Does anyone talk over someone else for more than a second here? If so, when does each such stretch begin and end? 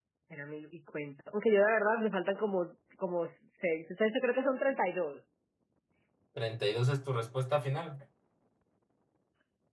none

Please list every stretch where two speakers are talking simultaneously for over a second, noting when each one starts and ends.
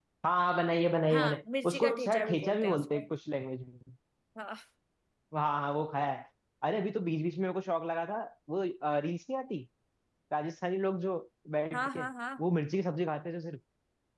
1.1-3.1

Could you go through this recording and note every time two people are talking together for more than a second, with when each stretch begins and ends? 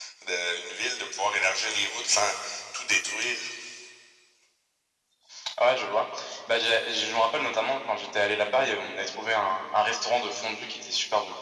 none

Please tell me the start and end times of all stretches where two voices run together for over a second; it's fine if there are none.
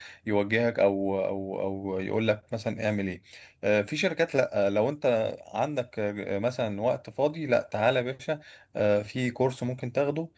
none

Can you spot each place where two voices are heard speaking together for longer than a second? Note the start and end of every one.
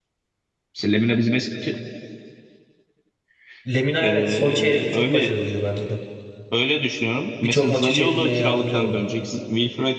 4.0-5.4, 7.4-9.0

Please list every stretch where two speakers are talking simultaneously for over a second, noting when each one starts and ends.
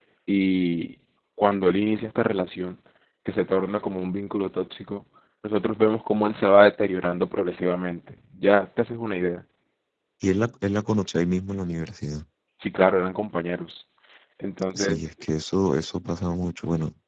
none

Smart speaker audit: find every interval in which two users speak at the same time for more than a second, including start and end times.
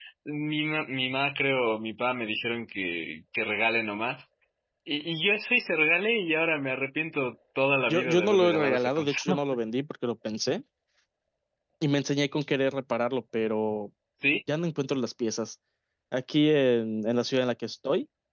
7.9-9.4

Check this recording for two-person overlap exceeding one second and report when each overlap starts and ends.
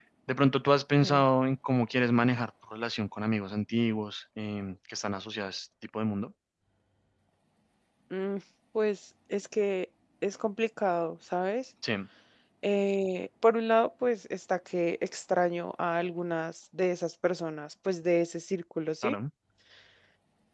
none

